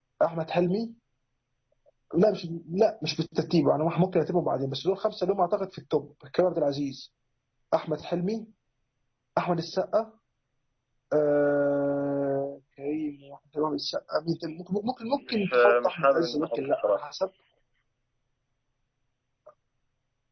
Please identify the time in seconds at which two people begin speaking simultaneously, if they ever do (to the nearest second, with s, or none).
15 s